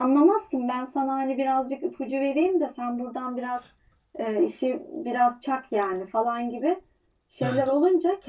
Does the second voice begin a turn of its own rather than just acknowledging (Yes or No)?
No